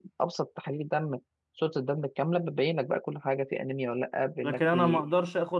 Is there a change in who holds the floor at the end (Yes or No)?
Yes